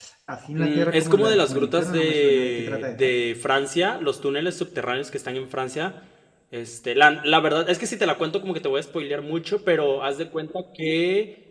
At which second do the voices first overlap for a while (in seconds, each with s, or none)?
0.6 s